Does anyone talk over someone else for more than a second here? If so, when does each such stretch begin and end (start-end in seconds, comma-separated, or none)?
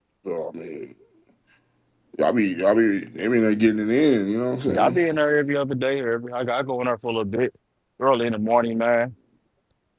none